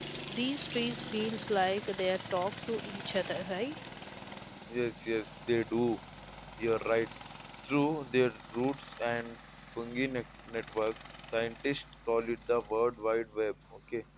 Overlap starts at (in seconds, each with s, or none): none